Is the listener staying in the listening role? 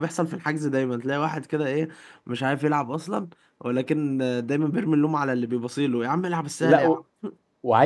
No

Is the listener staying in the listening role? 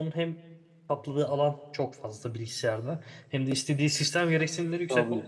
Yes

